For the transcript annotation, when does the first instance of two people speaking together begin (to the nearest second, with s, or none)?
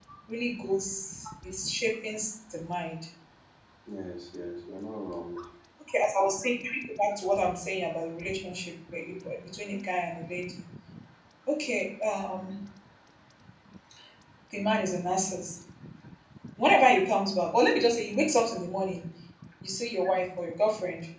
none